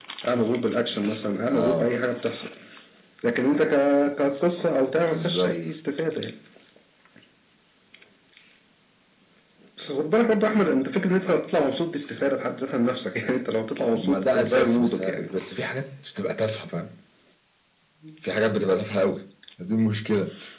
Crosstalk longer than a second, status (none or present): present